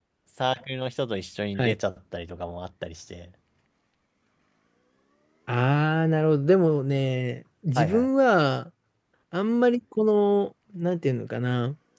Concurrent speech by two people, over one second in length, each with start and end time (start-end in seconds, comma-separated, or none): none